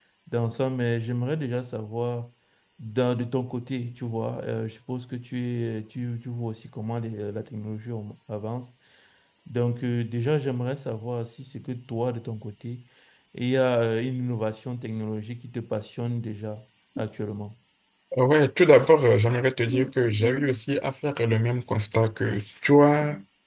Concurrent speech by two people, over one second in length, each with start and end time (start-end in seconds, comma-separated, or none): none